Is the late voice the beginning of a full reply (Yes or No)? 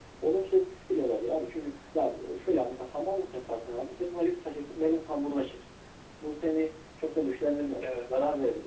No